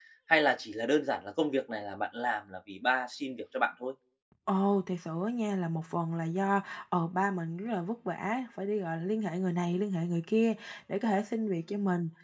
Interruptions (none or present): none